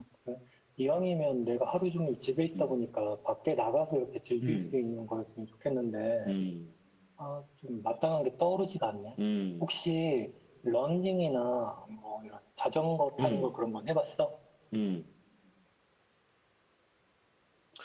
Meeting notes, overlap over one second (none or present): none